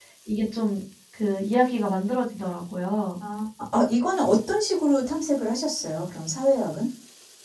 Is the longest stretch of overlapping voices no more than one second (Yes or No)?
Yes